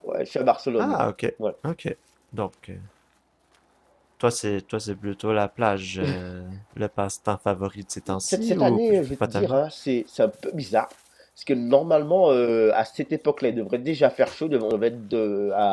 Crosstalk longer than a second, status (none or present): present